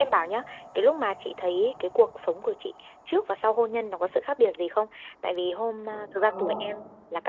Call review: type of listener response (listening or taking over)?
listening